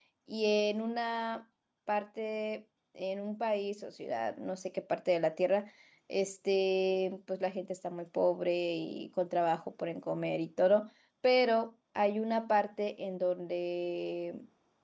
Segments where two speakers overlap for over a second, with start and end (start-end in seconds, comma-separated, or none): none